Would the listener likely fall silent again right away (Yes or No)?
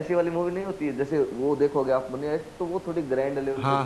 No